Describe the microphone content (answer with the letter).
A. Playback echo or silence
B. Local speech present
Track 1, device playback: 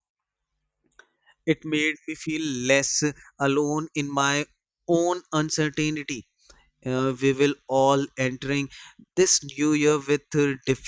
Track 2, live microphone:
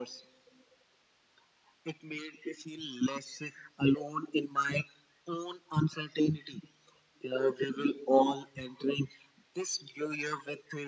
A